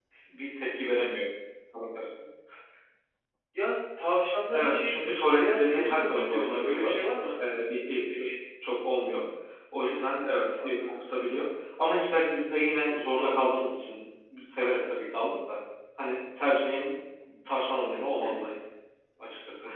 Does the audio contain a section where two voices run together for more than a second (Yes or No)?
Yes